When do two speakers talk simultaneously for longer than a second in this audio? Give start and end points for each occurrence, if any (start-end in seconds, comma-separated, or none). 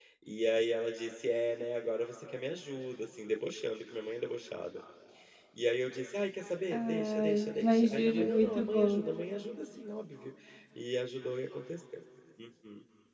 6.7-9.0